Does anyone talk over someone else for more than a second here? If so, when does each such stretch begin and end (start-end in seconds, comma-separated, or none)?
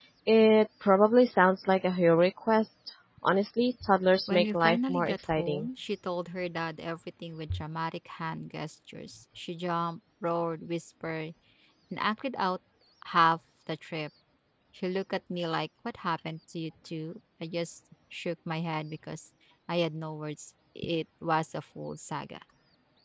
4.3-5.7